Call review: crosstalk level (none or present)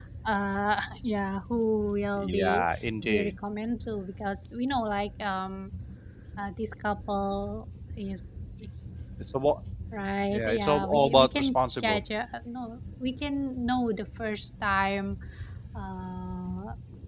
present